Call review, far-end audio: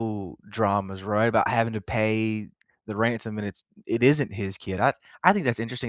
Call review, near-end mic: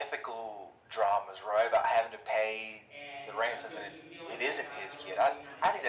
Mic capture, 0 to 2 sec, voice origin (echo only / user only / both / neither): echo only